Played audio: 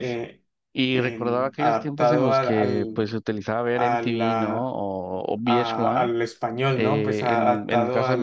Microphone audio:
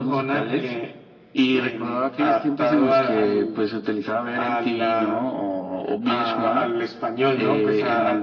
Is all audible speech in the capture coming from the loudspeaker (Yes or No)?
Yes